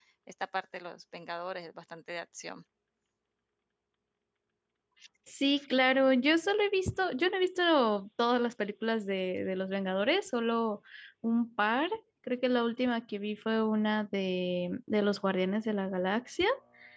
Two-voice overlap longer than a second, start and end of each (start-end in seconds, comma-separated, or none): none